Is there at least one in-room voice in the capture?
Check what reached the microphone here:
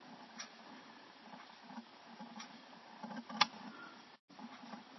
No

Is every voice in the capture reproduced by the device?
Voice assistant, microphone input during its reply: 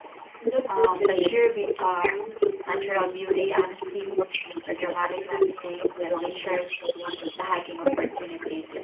No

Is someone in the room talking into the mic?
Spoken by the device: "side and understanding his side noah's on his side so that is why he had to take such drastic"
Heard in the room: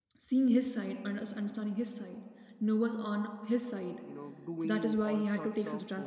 Yes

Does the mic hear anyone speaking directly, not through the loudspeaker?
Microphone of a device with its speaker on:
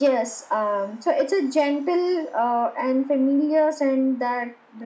No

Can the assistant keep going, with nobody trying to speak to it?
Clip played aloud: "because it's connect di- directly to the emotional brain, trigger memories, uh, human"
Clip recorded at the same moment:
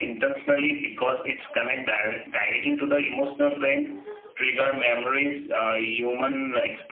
Yes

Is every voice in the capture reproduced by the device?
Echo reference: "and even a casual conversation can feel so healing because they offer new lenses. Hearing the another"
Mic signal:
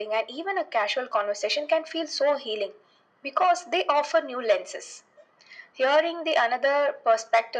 Yes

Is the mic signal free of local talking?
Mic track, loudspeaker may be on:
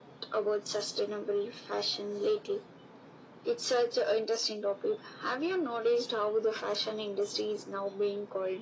Yes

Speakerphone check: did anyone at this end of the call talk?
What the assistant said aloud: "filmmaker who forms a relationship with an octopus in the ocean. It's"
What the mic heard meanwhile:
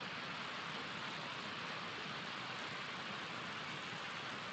No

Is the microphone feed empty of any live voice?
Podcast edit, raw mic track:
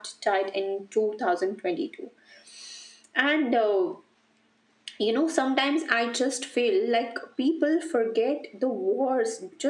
Yes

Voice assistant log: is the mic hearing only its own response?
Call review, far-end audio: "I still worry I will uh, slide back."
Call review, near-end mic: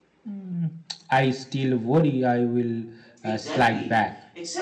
No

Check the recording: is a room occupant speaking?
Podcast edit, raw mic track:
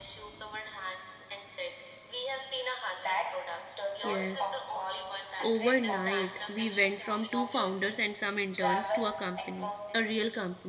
Yes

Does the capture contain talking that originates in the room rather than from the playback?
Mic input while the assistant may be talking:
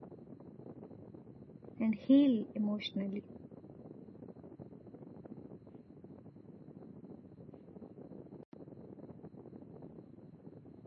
Yes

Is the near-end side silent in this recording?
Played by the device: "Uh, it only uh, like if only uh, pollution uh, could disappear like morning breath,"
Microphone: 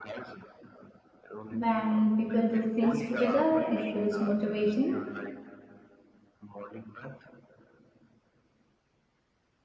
No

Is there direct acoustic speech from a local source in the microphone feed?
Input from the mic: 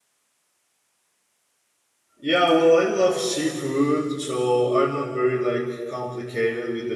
Yes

